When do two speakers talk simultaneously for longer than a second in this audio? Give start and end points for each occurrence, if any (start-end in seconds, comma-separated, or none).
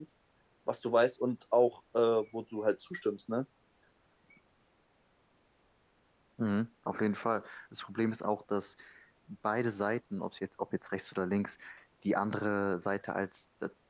none